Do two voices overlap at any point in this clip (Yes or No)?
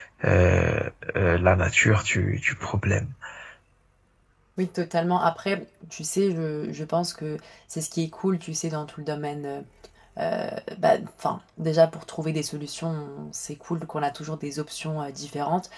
No